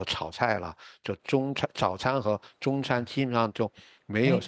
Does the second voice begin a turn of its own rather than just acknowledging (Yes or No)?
Yes